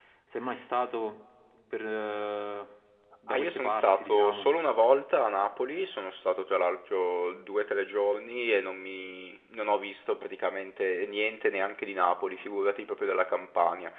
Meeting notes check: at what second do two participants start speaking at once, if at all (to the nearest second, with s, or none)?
3 s